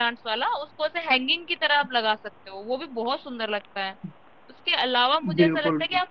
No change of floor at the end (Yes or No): Yes